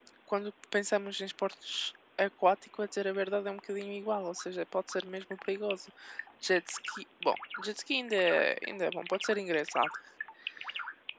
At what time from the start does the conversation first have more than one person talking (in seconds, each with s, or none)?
none